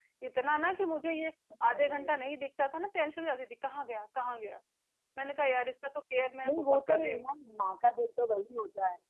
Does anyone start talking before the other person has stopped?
Yes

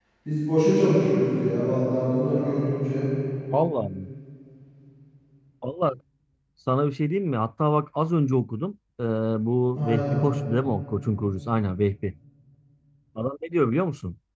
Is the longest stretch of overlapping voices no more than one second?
Yes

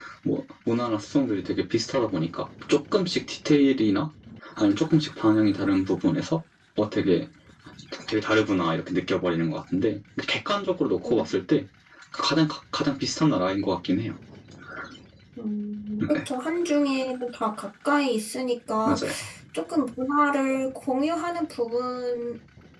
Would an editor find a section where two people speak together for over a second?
No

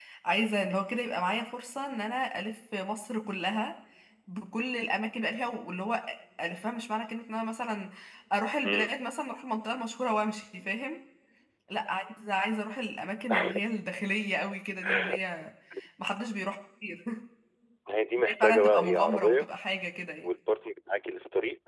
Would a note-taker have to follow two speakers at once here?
Yes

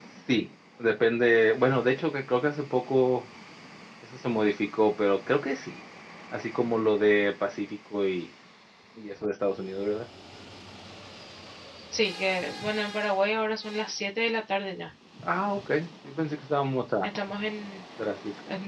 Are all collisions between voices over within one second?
Yes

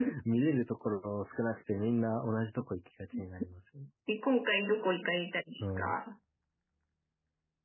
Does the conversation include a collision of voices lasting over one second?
No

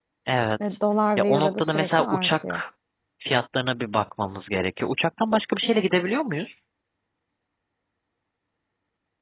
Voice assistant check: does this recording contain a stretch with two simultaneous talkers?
Yes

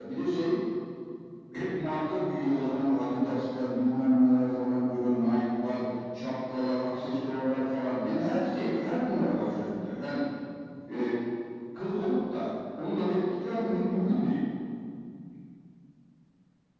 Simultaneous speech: No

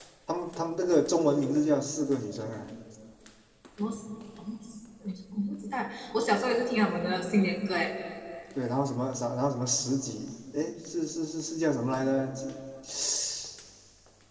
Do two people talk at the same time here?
No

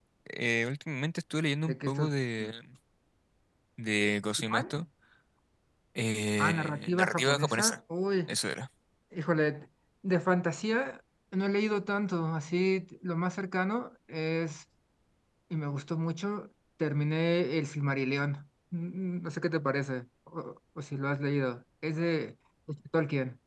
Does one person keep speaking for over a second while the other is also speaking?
Yes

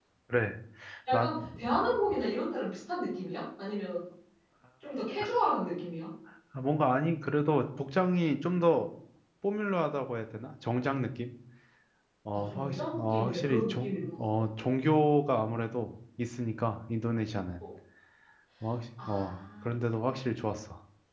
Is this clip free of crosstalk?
No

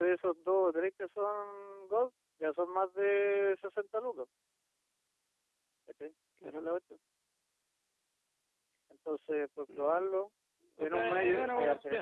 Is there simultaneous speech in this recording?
Yes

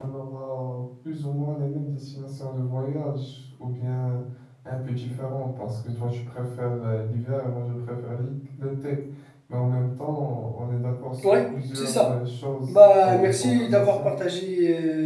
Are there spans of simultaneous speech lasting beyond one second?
Yes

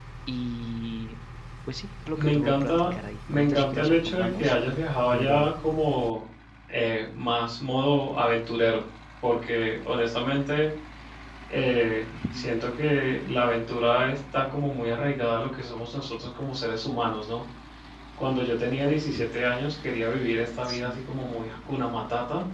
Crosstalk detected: Yes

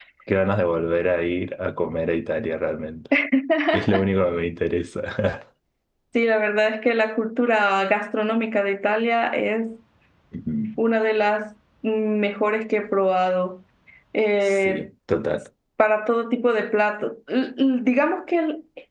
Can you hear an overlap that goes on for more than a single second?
No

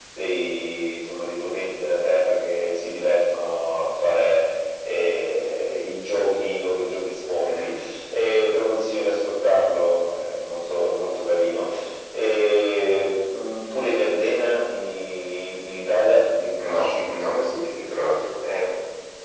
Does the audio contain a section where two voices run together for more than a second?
No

